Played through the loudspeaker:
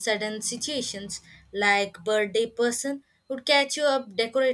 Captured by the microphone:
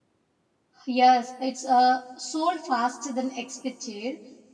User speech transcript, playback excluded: Yes, it's uh, sold faster than expected.

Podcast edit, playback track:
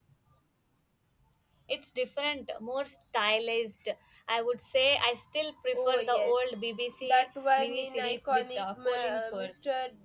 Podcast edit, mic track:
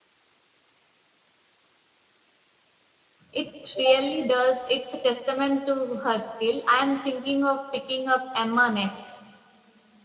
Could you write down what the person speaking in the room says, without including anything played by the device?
It really does. It's a testament to her skill. I am thinking of picking up Emma next.

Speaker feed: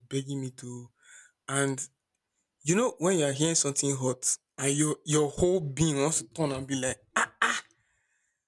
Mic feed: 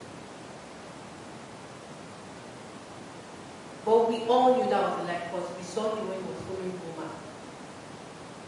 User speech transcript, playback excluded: But we all knew that was a lie because we saw him when he was following woman.

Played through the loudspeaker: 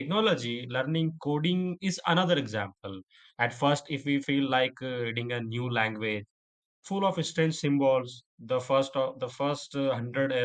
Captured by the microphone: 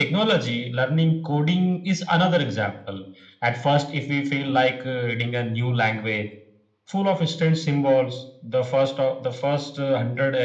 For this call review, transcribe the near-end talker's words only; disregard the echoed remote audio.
none

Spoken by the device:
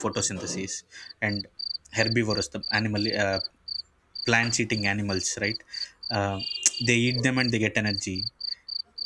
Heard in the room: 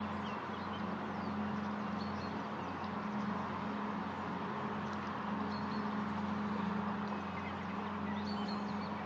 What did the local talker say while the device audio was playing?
none

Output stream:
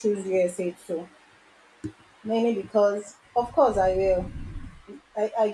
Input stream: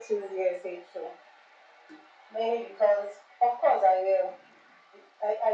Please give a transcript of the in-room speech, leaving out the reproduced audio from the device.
none

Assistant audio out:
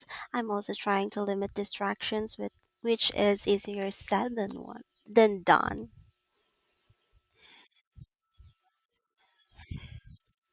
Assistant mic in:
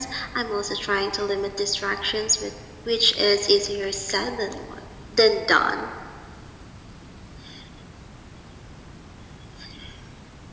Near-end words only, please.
none

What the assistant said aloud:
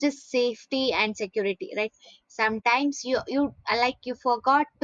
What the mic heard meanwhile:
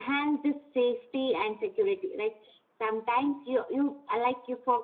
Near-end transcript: none

